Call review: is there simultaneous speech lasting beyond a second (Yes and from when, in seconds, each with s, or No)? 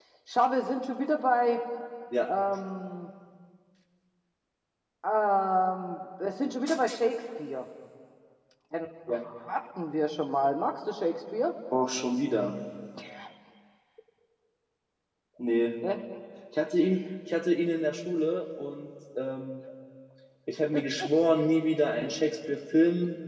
No